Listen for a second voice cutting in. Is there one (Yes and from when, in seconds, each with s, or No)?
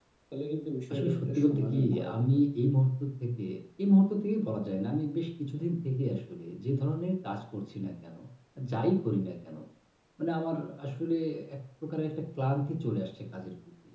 Yes, from 0.9 s